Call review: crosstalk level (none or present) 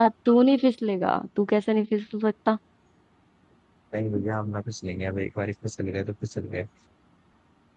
none